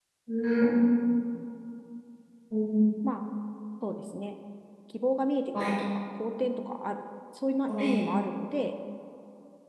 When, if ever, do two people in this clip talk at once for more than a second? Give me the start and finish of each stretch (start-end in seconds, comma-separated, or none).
none